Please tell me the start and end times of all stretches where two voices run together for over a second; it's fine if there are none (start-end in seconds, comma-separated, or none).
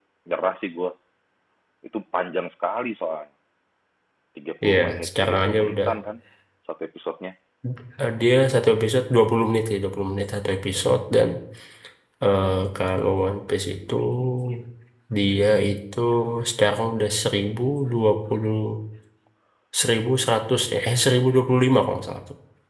4.6-5.9